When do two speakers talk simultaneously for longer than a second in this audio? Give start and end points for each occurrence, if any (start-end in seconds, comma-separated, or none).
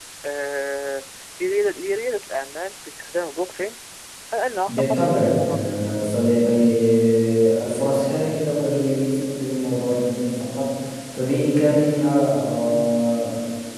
4.7-6.0